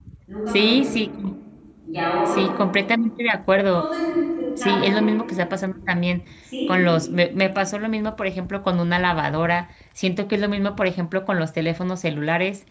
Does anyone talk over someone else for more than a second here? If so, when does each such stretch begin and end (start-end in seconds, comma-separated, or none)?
none